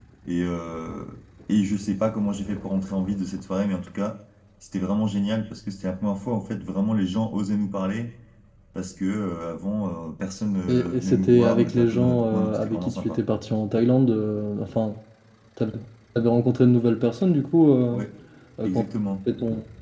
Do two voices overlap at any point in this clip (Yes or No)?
Yes